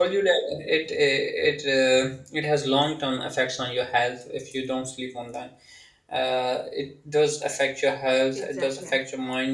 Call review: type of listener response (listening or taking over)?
listening